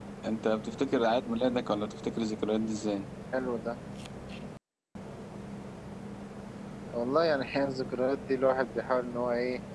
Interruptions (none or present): none